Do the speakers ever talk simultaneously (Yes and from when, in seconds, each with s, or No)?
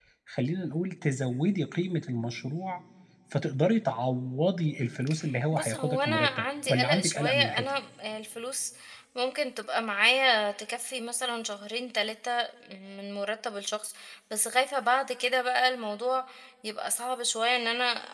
Yes, from 5.5 s